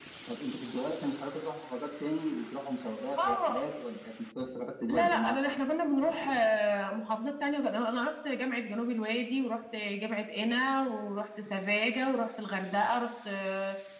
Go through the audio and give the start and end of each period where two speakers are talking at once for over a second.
none

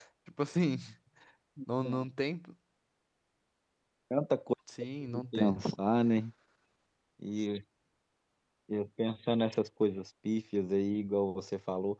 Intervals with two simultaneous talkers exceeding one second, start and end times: none

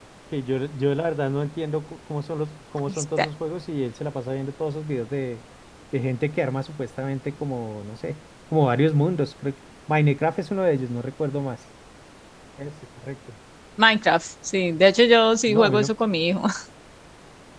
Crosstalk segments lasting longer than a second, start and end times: none

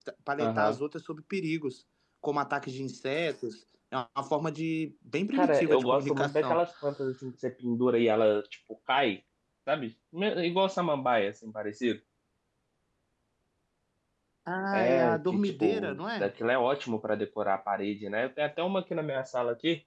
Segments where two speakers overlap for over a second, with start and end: 5.3-6.6, 14.7-16.3

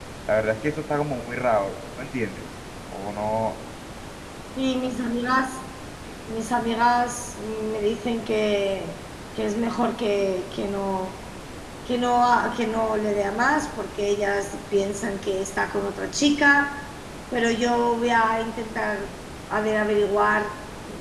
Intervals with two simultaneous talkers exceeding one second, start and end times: none

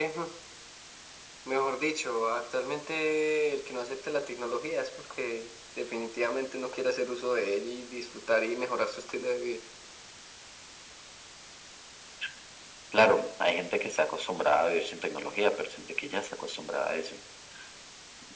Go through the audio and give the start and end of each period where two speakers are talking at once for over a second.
none

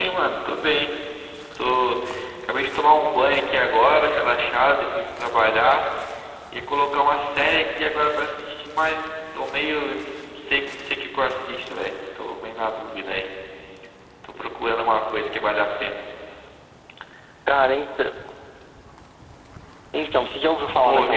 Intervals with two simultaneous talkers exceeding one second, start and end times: none

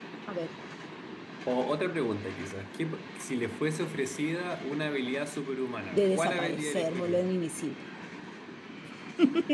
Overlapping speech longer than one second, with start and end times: 5.9-7.3

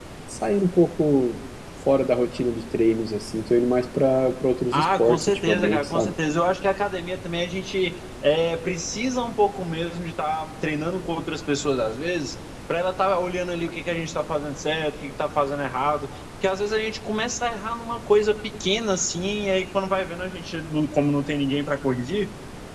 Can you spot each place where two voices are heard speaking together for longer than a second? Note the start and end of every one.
4.7-6.1

